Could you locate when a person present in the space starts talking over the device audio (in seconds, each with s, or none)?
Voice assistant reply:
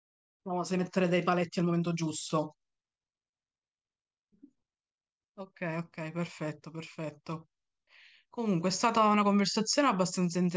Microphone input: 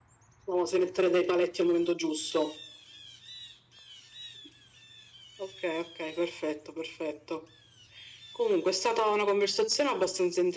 none